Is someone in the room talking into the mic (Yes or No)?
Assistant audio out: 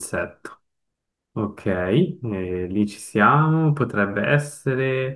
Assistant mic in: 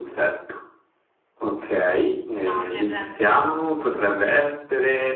Yes